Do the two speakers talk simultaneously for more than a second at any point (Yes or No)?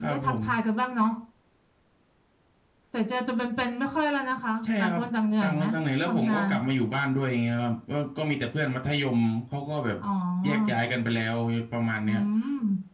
No